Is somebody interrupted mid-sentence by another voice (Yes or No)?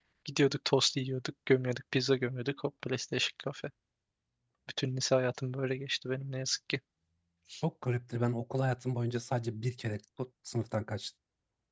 No